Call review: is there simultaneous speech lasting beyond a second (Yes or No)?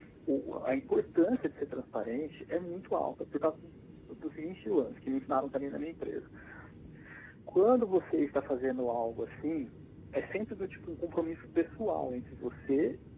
No